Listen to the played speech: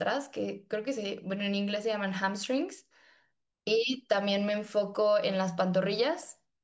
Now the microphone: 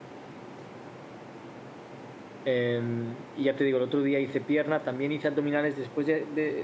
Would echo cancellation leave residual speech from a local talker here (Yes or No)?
Yes